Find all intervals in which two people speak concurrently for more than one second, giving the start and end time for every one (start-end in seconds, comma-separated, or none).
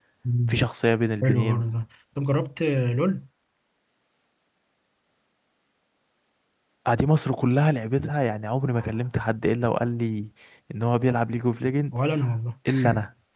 none